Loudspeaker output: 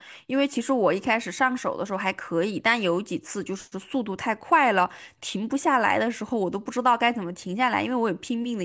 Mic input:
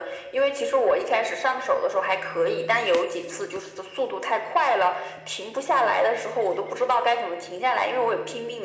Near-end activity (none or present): none